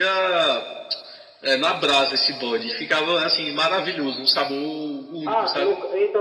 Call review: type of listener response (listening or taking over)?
taking over